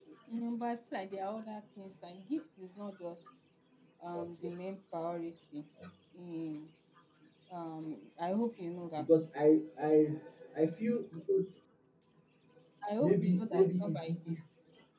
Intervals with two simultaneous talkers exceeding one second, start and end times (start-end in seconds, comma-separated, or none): 13.0-14.3